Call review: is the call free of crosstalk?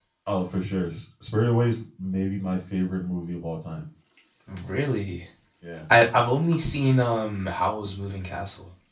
Yes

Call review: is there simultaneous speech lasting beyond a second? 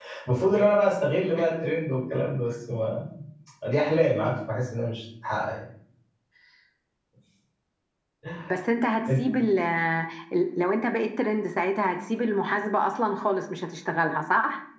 No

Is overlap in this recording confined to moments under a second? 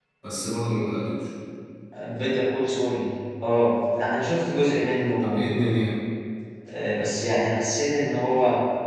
Yes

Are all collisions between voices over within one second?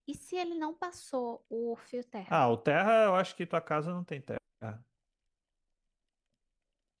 Yes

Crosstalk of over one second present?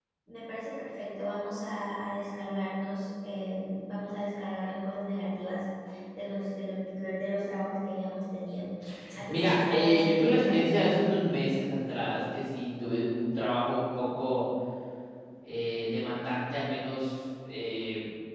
Yes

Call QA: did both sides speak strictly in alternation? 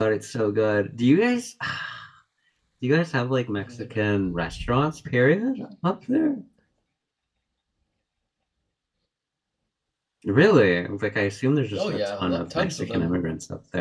No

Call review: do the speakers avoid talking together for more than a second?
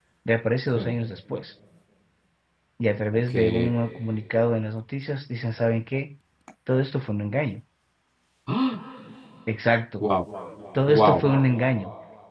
Yes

